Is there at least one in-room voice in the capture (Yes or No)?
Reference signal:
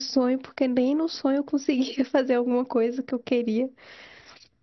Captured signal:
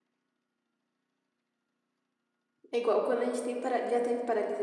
Yes